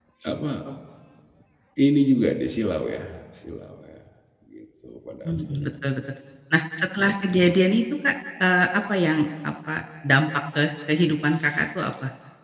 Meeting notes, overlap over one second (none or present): none